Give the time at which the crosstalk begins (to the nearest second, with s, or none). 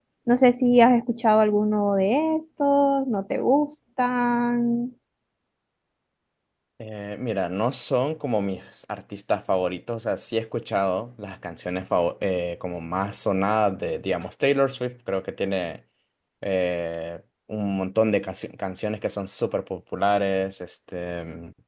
none